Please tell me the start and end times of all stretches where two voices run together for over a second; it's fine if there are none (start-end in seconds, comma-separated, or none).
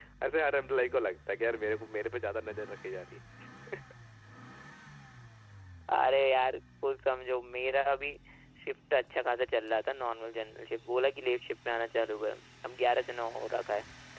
none